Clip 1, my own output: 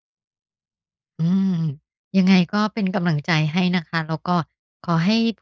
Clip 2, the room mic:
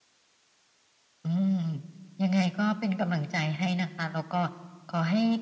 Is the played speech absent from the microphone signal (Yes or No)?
No